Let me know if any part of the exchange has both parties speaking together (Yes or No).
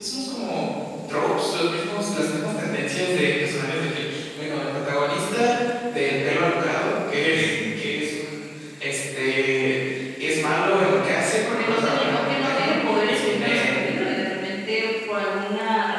Yes